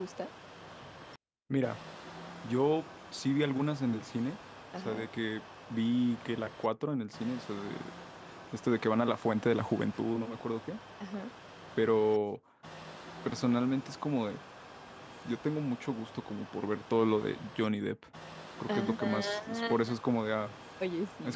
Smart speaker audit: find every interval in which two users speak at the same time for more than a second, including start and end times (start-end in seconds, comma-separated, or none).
18.7-19.9